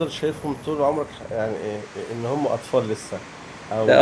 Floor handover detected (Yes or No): No